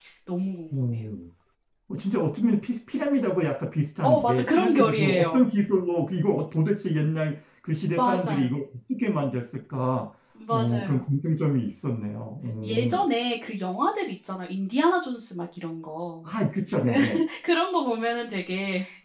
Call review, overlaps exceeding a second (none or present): present